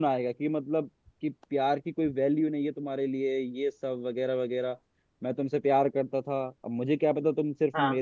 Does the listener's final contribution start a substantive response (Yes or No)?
No